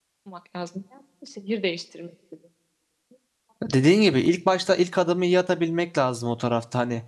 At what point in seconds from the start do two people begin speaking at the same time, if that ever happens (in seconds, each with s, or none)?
none